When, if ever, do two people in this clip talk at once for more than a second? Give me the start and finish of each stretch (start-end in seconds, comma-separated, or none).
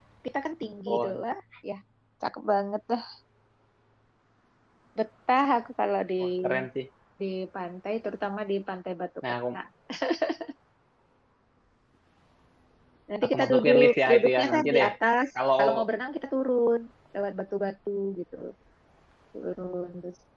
13.3-14.9